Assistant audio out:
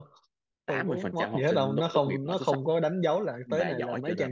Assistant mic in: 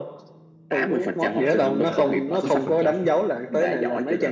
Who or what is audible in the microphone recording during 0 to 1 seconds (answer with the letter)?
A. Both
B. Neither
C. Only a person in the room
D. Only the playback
D